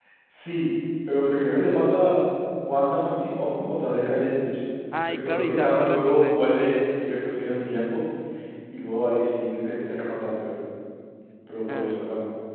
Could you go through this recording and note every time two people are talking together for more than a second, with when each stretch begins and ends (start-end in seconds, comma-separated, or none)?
5.1-6.4